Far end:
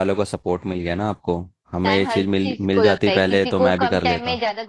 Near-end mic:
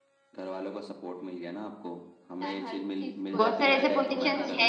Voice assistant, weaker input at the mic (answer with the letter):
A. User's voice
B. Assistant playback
B